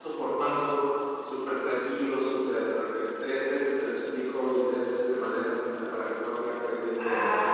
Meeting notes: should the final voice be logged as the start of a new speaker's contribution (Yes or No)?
Yes